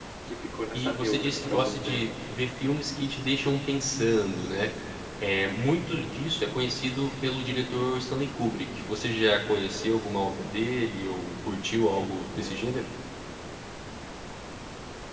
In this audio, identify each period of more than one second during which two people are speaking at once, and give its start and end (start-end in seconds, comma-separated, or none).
0.8-2.1